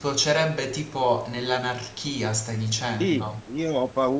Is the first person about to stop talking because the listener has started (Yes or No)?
Yes